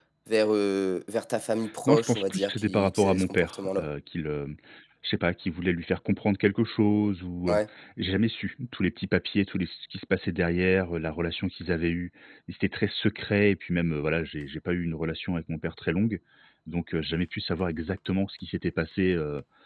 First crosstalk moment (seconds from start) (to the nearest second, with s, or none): 2 s